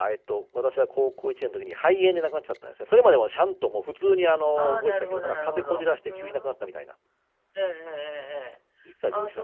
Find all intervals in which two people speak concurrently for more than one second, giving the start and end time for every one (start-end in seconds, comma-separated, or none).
4.6-6.5